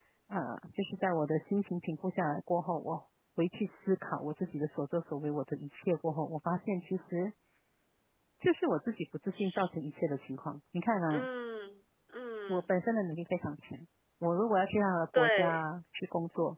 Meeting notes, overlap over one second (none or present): none